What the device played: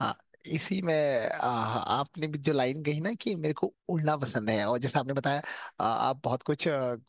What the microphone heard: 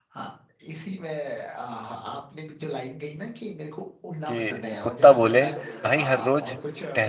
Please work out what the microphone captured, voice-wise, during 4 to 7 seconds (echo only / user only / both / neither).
both